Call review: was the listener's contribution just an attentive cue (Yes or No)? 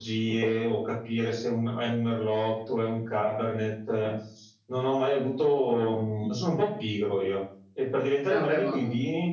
Yes